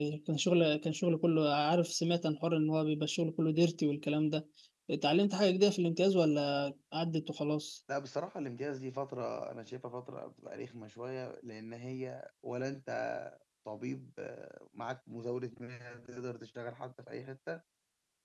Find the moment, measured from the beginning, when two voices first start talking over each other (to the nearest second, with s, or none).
none